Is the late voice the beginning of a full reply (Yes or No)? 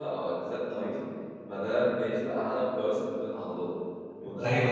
Yes